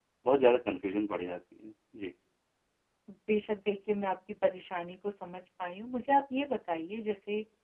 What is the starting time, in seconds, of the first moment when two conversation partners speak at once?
none

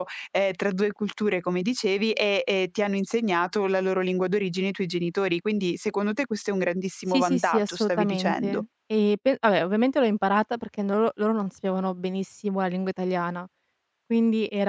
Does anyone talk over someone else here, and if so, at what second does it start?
7.1 s

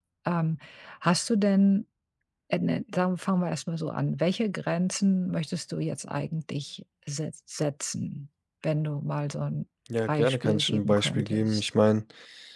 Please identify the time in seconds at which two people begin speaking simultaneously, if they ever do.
9.9 s

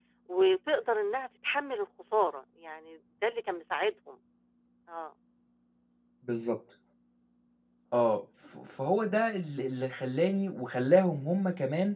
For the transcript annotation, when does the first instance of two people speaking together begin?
none

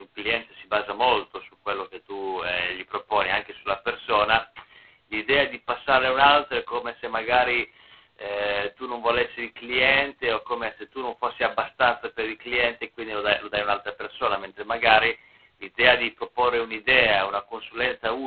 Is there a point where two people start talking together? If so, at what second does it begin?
none

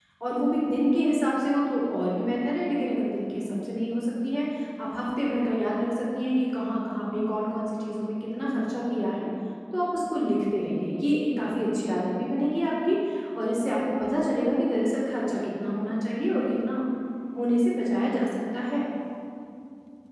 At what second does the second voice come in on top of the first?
none

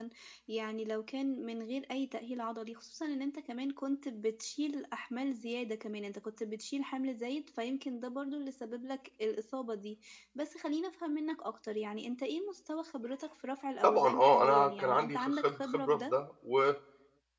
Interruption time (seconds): 13.8 s

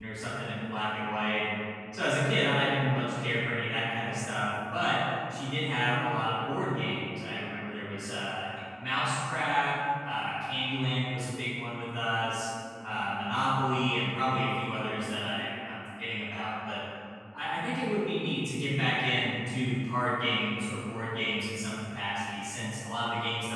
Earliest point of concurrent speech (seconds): none

